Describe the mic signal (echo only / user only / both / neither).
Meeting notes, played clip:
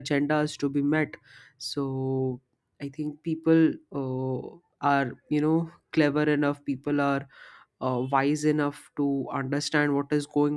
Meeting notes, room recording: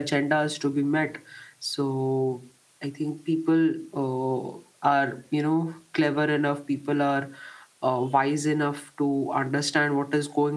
echo only